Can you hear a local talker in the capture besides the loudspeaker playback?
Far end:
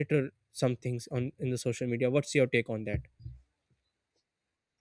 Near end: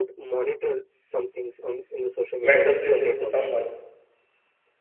Yes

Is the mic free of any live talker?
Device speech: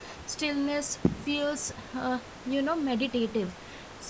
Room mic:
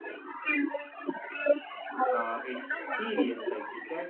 No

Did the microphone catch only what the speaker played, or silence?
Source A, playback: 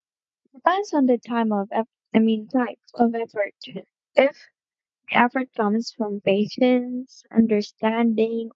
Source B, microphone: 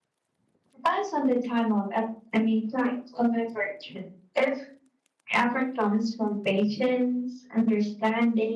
Yes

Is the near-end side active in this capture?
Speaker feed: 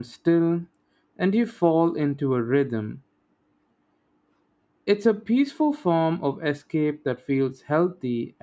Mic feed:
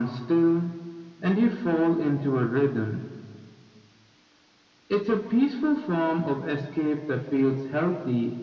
No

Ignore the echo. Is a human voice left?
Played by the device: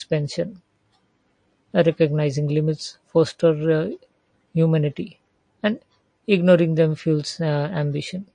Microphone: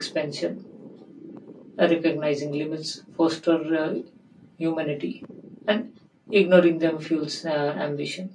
No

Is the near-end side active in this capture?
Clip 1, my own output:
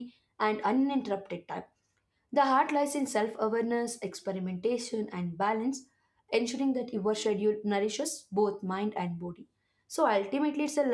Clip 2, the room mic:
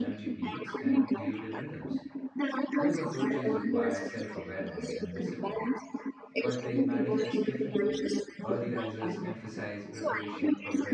Yes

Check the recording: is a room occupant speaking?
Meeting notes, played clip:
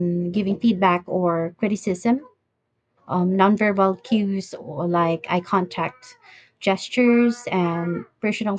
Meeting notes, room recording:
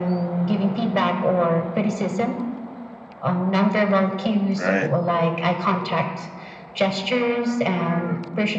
Yes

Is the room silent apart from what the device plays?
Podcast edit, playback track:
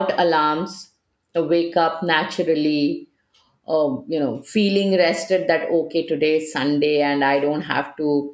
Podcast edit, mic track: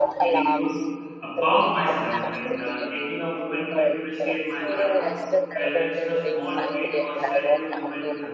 No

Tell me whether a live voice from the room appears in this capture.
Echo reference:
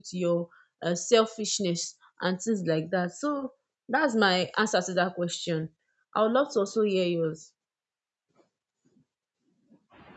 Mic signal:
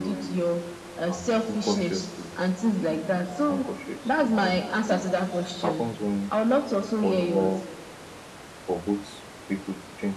Yes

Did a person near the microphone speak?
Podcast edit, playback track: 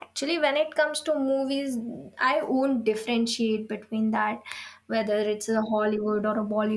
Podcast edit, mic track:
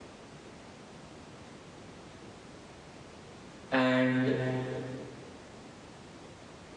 Yes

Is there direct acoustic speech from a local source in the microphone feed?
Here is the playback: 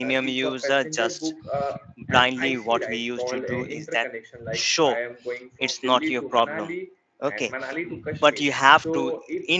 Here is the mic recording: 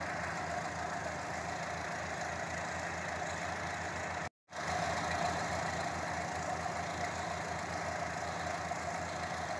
No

